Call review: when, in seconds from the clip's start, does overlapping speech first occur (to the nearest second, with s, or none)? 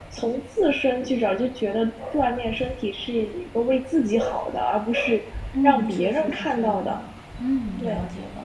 6 s